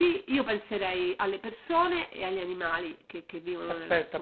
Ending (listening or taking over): taking over